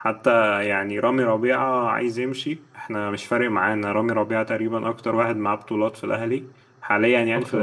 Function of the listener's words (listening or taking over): taking over